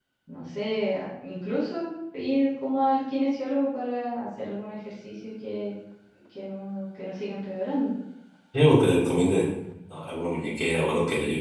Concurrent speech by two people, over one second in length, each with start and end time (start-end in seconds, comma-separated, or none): none